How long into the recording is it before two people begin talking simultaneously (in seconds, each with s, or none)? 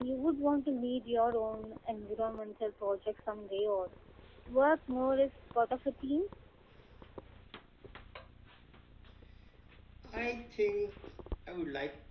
none